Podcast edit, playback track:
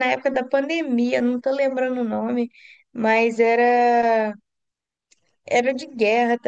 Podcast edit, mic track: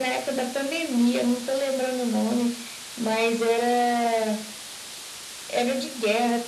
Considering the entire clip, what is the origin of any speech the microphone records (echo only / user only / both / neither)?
echo only